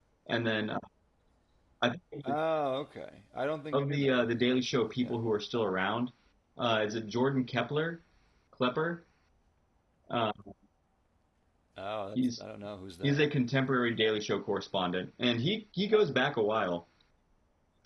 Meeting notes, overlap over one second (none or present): present